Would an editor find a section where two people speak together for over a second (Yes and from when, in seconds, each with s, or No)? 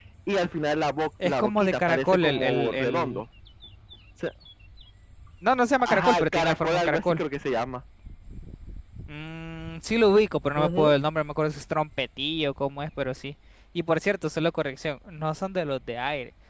Yes, from 1.2 s